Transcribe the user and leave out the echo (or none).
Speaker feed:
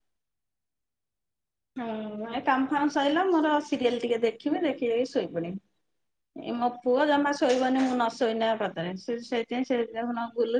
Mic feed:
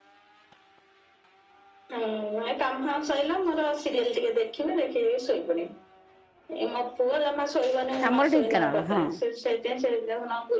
ଆମର ଢେଙାନାଳ ହଁ,